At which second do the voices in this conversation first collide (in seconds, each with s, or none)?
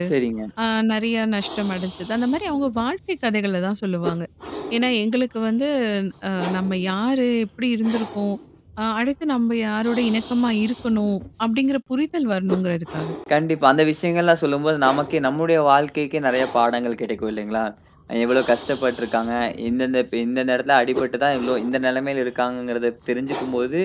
none